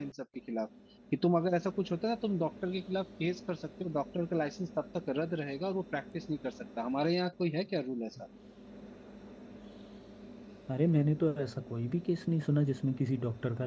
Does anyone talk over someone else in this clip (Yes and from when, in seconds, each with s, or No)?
No